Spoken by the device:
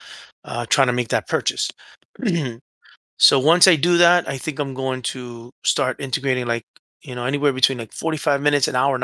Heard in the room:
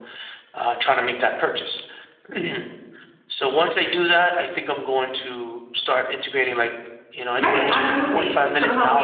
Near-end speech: present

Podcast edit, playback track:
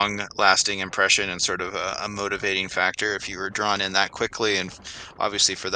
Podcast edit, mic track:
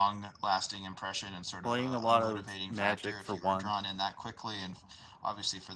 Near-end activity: present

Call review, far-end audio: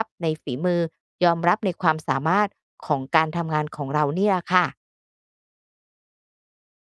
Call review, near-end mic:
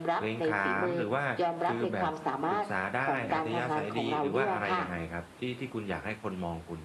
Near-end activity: present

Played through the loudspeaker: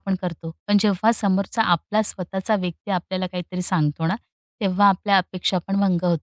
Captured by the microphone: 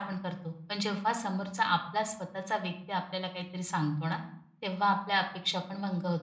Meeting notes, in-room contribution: none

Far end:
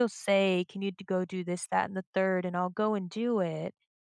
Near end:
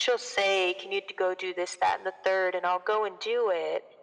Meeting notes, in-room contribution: none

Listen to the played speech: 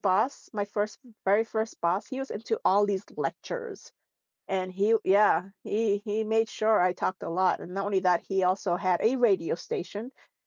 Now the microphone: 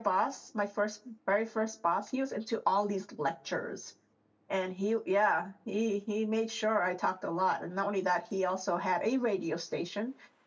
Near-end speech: none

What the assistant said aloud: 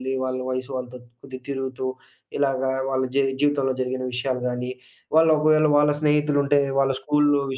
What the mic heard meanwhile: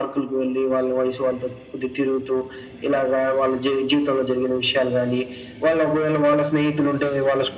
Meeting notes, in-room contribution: none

